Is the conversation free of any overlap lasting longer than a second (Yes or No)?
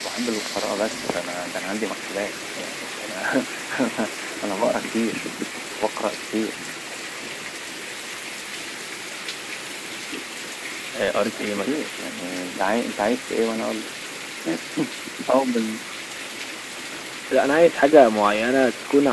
Yes